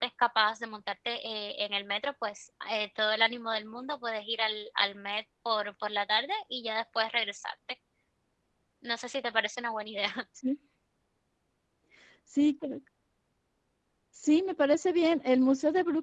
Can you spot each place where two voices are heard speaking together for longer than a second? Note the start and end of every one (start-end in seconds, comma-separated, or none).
none